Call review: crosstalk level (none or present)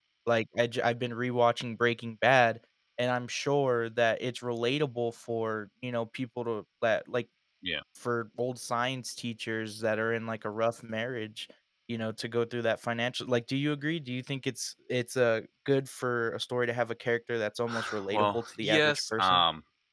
present